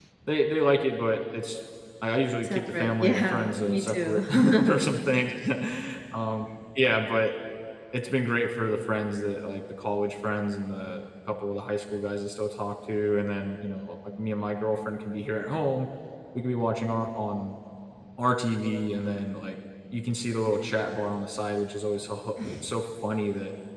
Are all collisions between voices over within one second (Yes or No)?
No